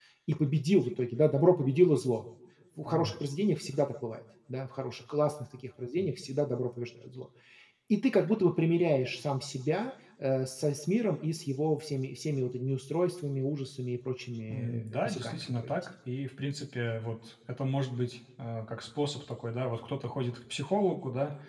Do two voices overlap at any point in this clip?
Yes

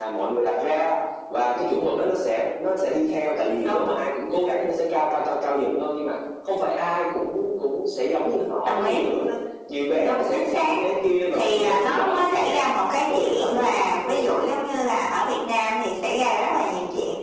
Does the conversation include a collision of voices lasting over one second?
Yes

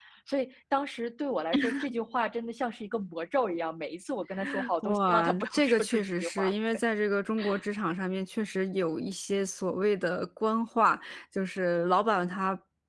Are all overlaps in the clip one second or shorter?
No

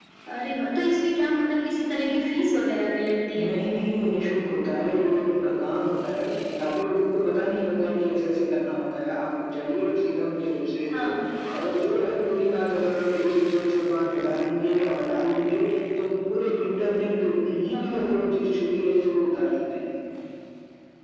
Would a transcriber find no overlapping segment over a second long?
Yes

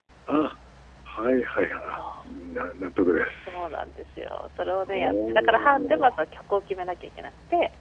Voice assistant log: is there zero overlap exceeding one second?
No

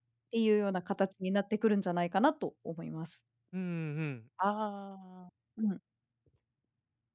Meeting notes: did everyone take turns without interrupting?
Yes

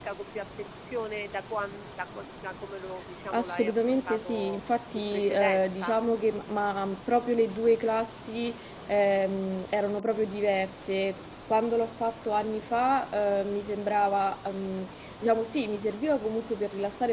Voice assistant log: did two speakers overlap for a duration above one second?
Yes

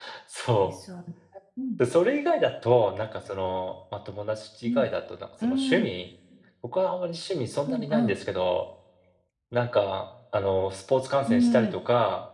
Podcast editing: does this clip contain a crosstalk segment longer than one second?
No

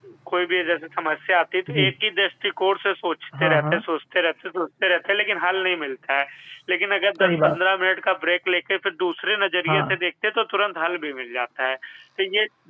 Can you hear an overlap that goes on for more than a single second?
No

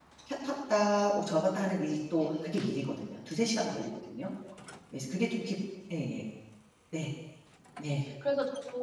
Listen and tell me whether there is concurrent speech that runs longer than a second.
No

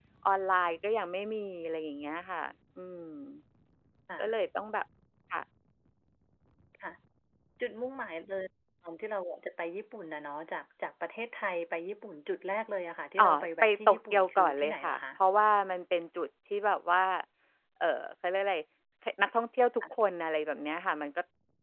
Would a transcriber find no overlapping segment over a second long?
No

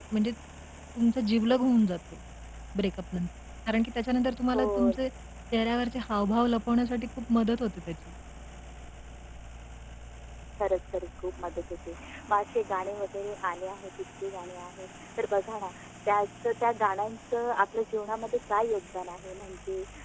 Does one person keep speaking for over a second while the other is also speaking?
No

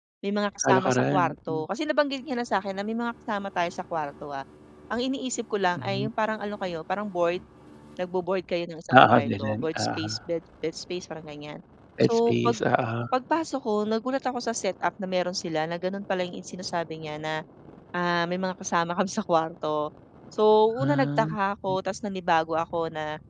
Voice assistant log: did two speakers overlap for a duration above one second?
Yes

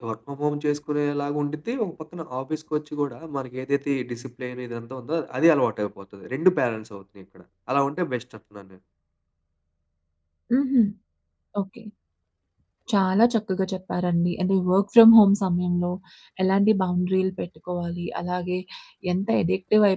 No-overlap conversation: Yes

